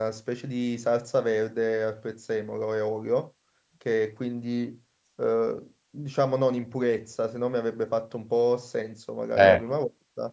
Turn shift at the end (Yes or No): No